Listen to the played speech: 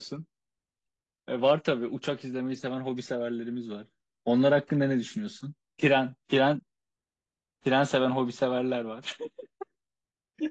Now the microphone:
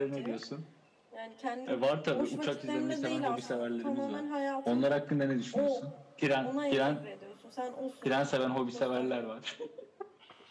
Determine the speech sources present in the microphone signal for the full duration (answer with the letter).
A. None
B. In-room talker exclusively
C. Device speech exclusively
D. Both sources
D